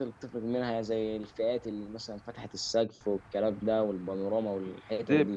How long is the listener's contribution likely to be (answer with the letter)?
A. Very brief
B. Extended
B